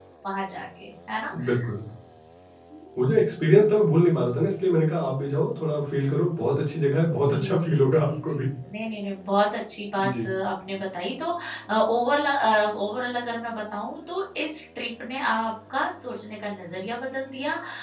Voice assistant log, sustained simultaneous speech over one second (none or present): present